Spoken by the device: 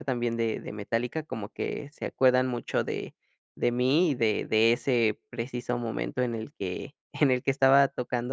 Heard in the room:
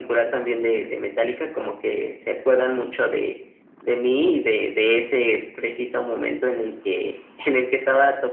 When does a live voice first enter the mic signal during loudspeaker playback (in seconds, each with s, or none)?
none